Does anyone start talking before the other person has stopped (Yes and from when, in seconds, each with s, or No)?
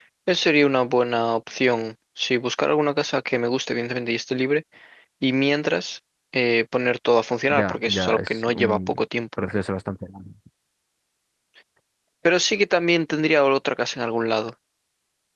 Yes, from 7.5 s